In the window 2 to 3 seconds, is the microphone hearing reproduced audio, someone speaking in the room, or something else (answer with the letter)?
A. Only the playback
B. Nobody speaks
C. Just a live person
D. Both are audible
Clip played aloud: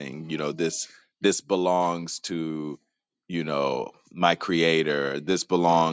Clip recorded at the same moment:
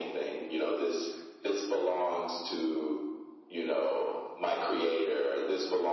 A